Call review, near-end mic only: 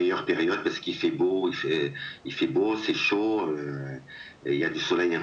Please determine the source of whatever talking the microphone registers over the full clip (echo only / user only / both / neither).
echo only